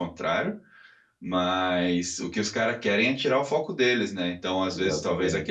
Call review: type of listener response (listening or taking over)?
listening